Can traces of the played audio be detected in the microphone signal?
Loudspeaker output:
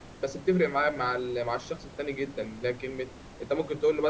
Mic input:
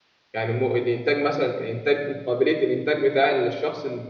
No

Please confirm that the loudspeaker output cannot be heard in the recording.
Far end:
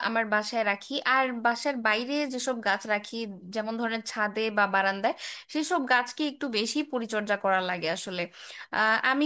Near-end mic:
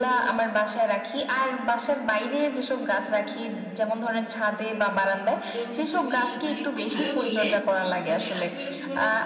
No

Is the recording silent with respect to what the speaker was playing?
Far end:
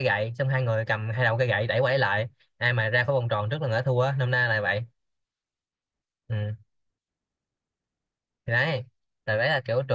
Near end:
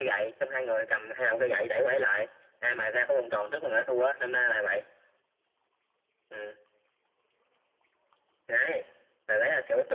No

